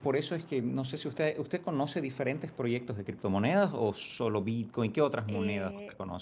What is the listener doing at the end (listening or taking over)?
taking over